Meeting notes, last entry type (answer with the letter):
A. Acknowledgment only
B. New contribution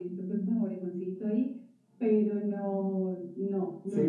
B